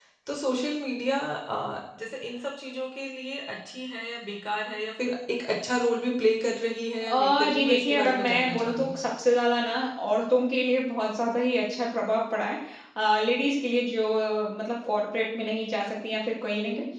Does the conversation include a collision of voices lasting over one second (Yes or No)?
Yes